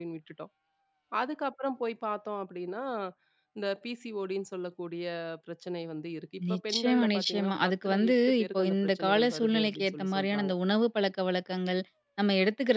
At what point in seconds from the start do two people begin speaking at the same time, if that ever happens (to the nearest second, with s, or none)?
6 s